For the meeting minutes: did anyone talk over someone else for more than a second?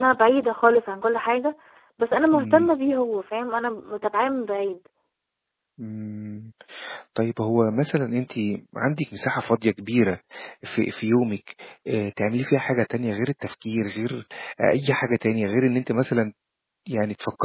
No

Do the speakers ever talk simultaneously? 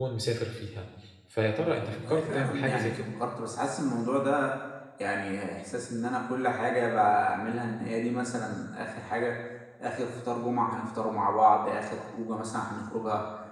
Yes, from 1.8 s

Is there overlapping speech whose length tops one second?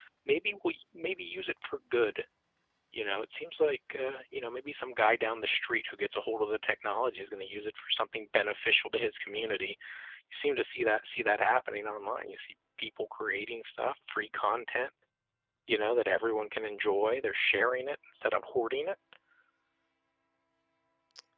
No

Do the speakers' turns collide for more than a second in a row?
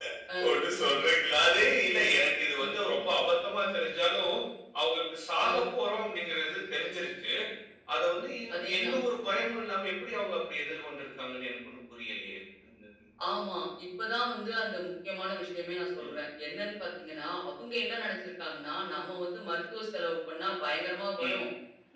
No

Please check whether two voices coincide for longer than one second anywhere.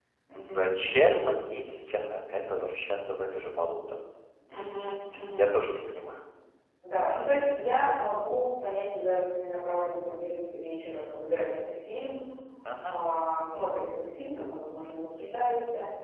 No

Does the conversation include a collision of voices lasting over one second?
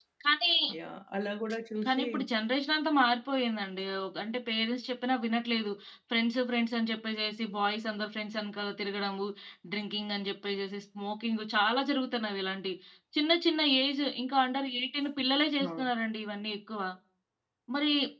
No

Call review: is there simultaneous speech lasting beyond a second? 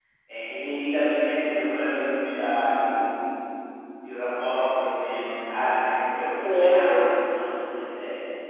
Yes, from 6.4 s

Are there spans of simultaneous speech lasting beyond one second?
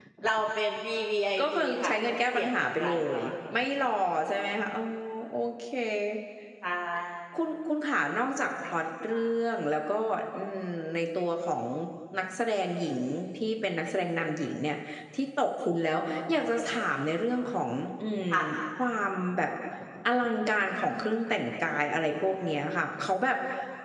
Yes, from 1.4 s

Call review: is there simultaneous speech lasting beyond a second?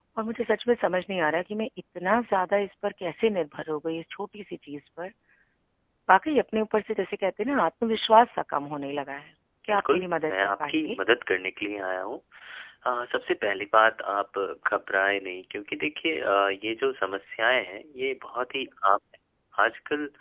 Yes, from 9.7 s

